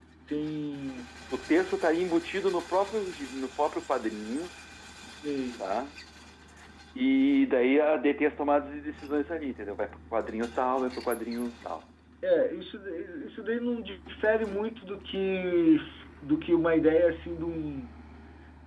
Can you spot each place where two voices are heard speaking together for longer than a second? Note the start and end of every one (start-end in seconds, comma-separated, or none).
none